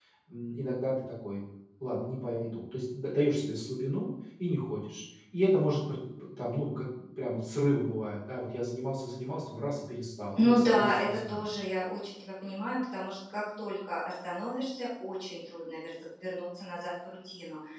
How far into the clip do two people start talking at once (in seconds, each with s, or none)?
10.3 s